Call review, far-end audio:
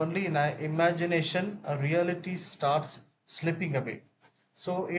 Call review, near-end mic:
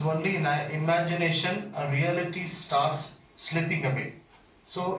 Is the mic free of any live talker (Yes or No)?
Yes